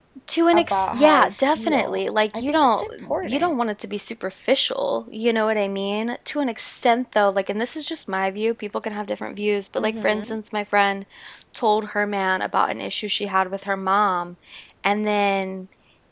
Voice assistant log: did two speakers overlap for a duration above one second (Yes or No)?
Yes